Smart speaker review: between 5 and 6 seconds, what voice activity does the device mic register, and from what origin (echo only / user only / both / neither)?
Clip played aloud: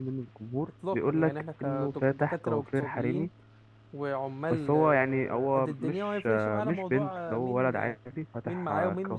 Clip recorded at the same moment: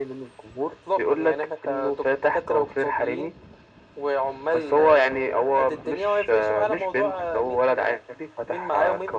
echo only